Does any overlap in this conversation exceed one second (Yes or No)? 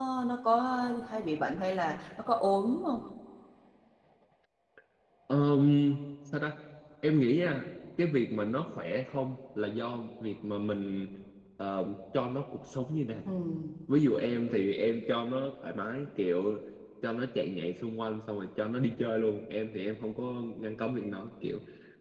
No